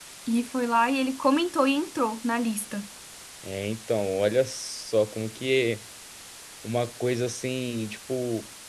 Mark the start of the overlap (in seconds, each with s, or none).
none